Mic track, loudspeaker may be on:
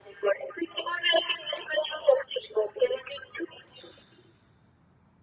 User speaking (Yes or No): No